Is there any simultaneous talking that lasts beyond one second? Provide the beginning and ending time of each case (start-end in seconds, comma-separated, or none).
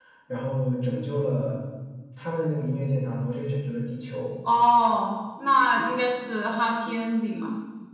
none